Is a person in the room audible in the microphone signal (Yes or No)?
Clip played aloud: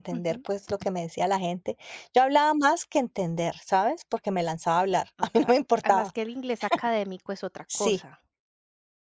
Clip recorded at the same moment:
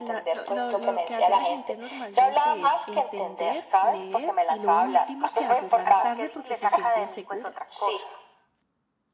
Yes